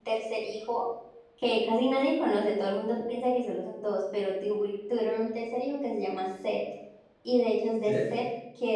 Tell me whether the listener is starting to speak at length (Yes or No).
No